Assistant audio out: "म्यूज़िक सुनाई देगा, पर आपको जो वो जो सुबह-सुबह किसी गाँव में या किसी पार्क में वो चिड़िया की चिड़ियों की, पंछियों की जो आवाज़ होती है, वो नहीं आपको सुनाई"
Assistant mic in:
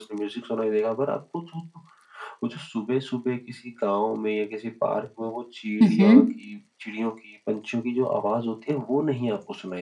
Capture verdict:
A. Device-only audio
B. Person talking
B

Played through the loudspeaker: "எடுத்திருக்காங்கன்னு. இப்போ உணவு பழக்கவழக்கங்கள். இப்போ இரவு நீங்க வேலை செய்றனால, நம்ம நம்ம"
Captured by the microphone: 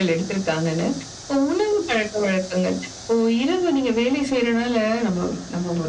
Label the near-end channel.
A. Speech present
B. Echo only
B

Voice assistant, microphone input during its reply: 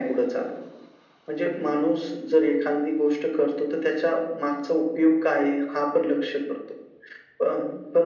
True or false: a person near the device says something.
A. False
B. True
A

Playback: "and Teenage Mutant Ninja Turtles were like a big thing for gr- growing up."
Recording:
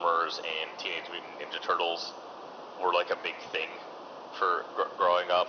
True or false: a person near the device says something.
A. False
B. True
A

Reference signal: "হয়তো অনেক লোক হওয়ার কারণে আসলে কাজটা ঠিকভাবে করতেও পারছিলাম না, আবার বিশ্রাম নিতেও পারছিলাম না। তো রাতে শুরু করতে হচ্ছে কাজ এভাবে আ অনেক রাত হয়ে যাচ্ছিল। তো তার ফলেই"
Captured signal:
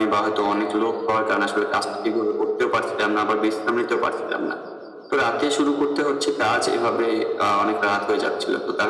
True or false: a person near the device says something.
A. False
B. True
A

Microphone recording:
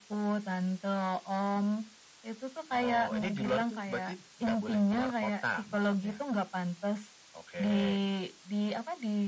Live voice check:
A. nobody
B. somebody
A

